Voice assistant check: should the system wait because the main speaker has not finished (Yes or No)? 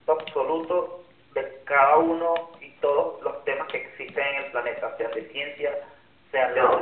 Yes